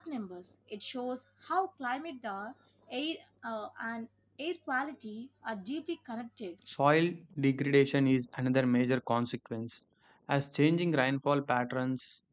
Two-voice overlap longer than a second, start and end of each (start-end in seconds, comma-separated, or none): none